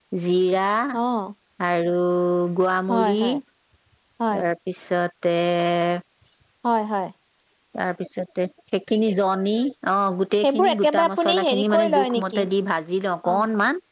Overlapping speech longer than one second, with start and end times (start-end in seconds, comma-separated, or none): 10.4-12.4